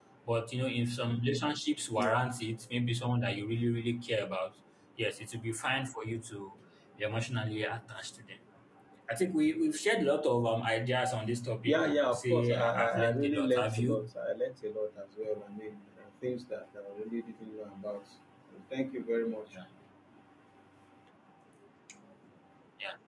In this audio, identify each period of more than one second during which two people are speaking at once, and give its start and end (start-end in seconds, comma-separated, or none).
11.6-14.1